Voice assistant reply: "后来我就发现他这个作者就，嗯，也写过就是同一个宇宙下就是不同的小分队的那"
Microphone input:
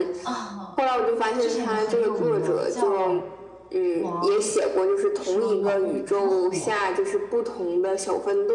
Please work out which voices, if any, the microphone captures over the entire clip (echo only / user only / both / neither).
both